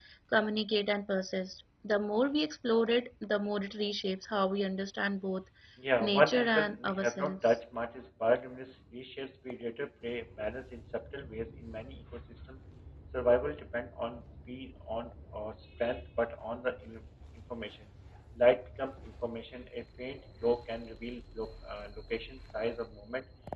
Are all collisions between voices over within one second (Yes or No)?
No